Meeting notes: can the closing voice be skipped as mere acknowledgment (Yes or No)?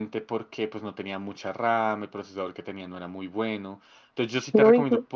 Yes